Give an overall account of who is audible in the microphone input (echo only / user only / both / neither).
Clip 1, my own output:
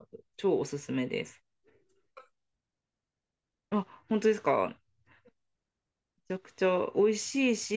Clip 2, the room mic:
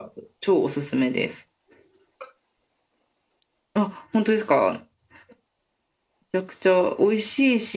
echo only